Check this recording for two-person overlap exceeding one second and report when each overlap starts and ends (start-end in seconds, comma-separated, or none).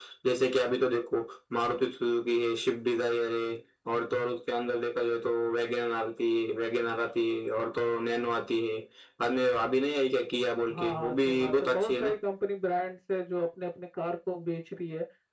10.7-12.1